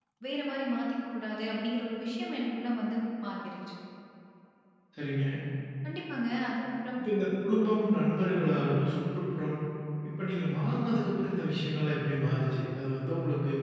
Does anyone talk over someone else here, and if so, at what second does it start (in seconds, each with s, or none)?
none